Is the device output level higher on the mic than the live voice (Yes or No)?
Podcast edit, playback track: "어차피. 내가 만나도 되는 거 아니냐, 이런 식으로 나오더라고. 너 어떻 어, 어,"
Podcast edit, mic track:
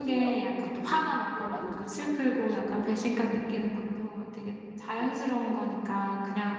No